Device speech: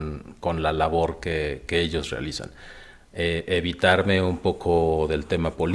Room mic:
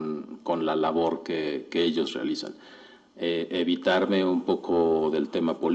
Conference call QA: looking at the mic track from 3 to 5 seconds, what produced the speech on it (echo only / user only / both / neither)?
echo only